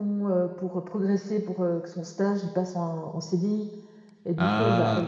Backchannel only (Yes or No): Yes